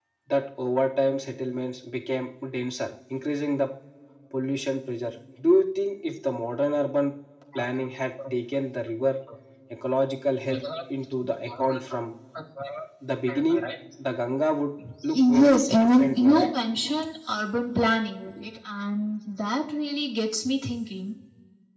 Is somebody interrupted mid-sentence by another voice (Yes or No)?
Yes